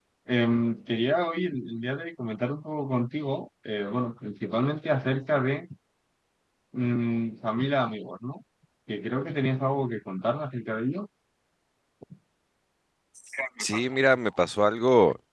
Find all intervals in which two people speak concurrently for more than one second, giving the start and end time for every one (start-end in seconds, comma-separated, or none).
none